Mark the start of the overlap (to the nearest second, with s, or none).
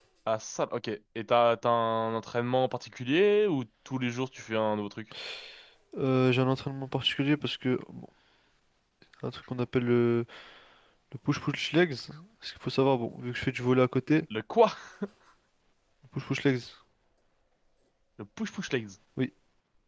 none